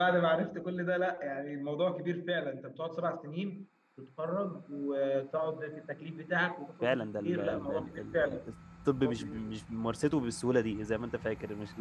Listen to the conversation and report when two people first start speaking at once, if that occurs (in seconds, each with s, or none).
6.8 s